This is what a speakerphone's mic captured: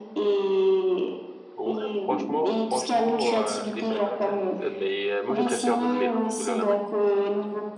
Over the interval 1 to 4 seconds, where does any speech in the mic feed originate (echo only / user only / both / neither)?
both